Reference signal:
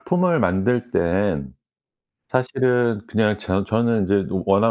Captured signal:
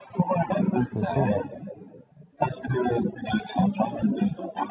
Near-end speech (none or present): present